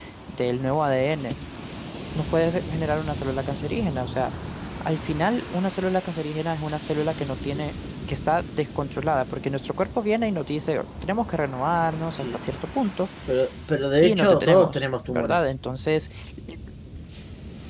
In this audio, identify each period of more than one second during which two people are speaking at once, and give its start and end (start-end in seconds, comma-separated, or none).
14.0-15.4